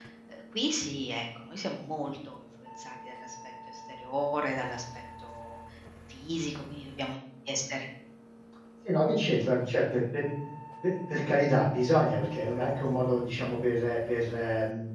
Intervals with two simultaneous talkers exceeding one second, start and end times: none

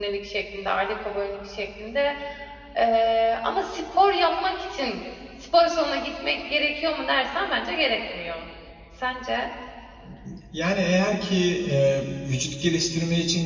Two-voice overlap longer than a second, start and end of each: none

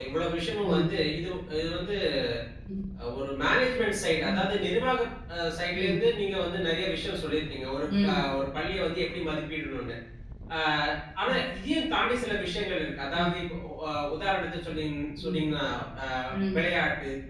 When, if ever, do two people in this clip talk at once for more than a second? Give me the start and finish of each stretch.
none

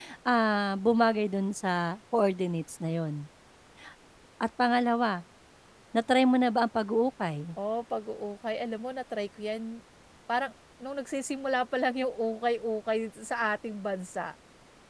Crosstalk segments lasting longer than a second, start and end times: none

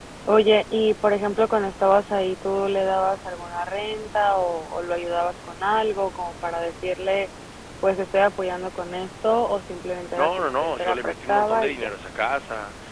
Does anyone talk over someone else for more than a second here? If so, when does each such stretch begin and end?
10.2-11.9

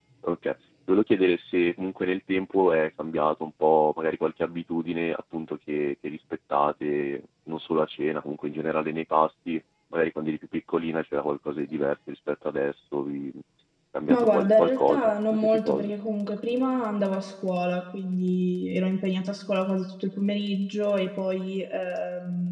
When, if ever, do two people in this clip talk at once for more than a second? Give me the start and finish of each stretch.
14.1-15.9

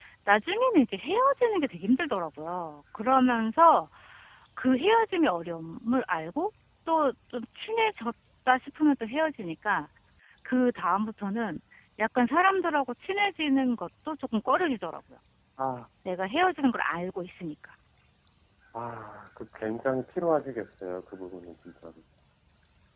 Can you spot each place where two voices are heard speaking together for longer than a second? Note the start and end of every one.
none

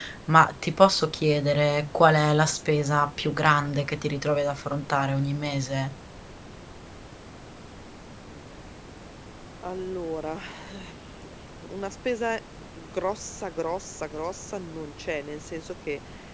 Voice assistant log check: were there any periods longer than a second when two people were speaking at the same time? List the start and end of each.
none

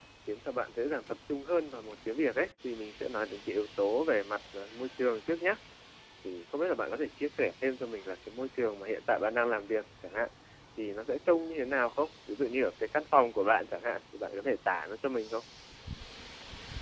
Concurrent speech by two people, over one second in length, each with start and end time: none

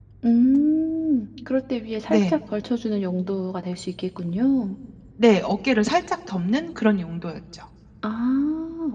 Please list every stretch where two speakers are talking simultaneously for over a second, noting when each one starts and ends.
none

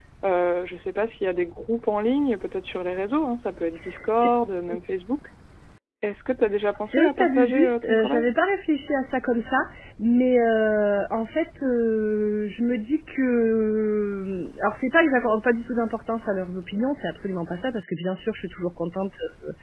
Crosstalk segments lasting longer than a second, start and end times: 6.9-8.2

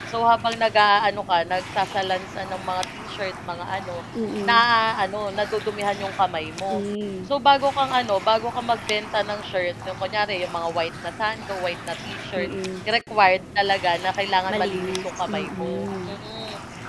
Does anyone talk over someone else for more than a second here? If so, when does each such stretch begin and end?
14.5-16.2

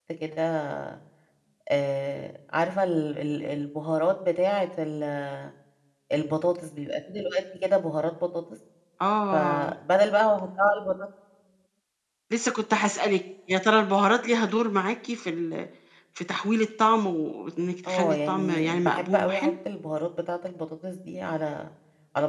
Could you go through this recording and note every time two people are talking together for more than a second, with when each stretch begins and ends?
17.9-19.5

